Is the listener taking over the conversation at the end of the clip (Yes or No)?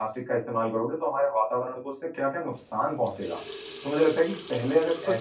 No